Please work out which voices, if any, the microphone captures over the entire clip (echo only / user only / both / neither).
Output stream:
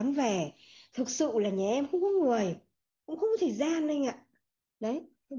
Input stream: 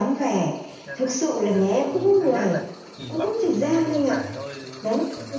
both